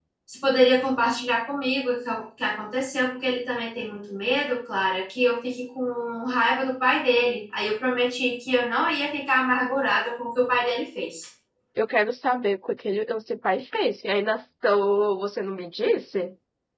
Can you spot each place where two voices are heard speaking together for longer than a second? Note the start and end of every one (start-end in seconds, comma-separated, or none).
none